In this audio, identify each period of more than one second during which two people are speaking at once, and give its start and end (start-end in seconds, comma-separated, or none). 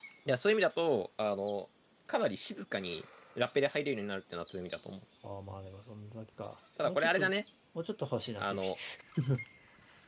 none